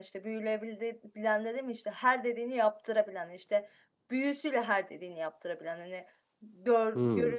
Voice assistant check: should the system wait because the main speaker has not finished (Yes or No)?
Yes